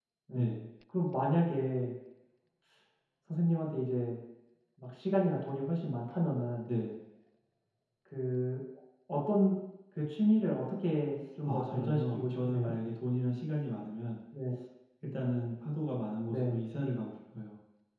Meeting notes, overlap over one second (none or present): present